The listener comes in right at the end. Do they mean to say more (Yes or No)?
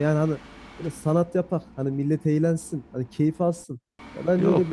No